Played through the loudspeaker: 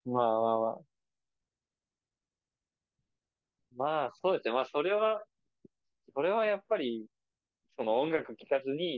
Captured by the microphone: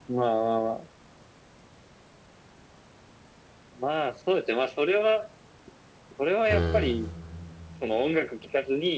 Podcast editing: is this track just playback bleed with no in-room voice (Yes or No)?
No